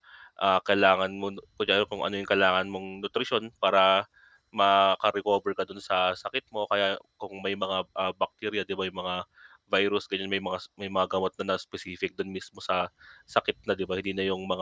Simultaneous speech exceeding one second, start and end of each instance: none

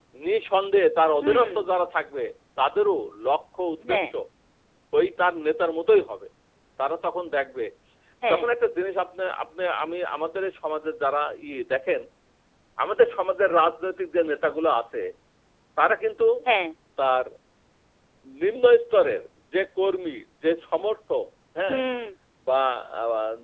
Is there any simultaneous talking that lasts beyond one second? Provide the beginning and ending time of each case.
none

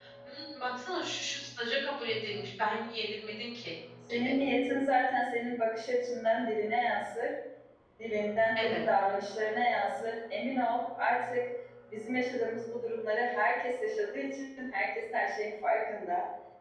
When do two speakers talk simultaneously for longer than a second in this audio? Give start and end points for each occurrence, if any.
none

